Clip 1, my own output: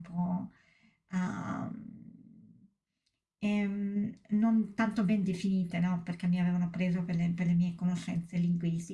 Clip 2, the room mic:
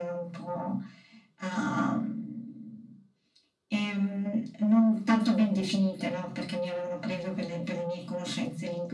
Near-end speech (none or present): none